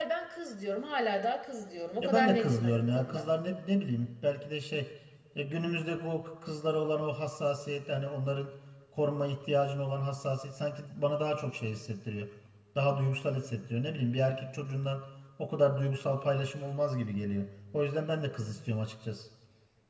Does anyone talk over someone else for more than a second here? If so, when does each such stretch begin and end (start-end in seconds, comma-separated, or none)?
2.0-3.2